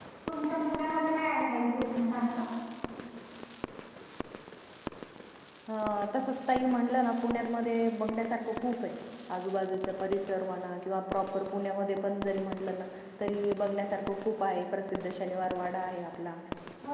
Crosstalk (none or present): none